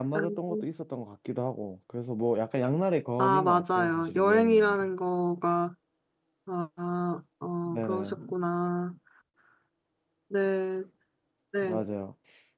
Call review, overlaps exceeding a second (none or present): present